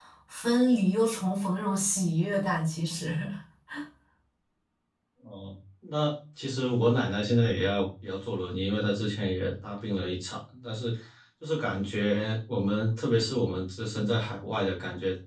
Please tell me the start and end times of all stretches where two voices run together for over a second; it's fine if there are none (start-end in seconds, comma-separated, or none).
none